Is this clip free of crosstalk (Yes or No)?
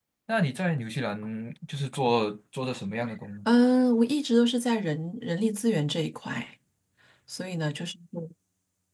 Yes